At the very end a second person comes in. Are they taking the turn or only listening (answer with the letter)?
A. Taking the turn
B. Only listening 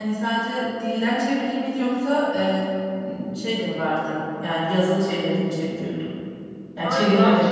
A